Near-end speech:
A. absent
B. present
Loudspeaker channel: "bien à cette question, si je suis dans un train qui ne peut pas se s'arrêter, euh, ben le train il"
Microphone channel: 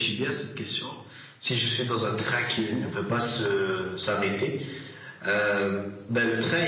B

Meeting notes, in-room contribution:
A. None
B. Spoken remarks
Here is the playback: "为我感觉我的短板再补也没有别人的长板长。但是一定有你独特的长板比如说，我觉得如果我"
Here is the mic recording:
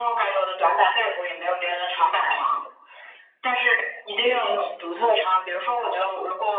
A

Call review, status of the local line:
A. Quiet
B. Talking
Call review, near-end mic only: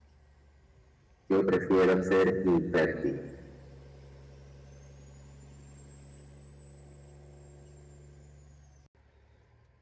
B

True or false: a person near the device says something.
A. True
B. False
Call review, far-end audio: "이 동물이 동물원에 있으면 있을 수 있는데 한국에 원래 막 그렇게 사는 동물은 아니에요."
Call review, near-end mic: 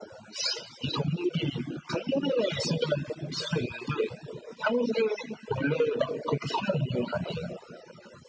B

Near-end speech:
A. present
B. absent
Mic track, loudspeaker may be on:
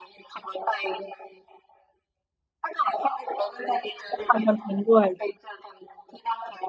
A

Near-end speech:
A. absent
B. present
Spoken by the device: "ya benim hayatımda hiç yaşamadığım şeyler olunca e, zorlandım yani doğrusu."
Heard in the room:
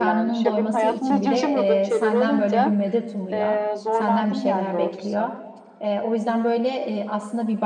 B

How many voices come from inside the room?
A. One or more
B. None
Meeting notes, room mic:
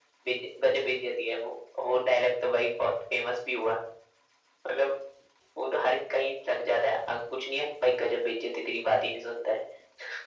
B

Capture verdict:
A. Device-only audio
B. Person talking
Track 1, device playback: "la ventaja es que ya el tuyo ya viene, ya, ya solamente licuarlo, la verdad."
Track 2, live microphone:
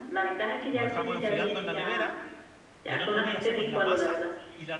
B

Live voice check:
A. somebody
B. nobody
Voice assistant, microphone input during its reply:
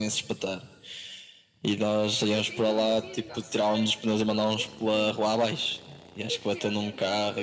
A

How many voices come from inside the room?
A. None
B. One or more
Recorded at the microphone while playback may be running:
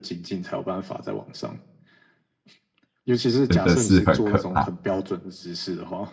B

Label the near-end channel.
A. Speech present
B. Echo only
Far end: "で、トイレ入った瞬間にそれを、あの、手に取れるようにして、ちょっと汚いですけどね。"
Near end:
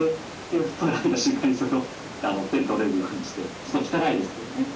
B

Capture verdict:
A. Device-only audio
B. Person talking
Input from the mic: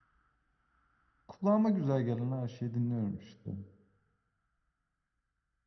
B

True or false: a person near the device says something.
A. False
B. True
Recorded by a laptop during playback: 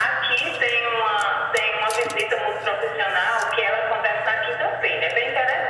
A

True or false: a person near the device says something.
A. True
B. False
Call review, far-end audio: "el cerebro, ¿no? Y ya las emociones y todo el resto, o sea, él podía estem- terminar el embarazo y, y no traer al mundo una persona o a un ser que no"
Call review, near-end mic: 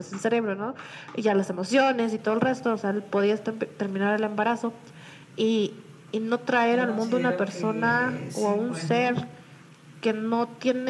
A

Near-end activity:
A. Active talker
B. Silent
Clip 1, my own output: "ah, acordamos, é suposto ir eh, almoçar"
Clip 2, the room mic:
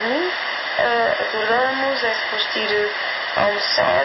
B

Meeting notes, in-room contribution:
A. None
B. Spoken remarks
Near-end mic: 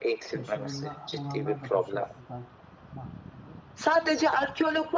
B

